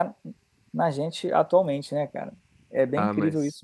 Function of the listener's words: taking over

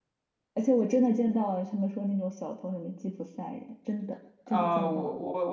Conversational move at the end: taking over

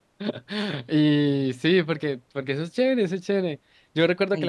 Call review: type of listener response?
listening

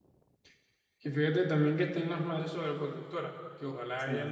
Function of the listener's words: listening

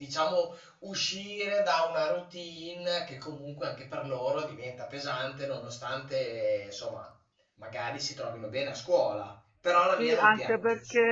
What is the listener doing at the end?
taking over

